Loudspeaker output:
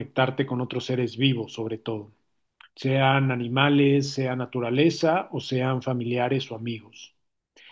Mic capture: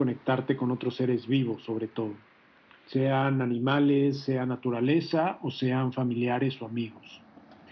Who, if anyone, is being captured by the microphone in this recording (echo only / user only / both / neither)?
echo only